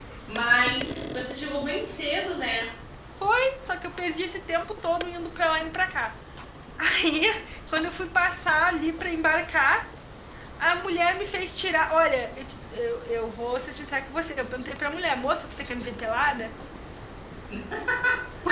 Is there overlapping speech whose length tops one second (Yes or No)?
No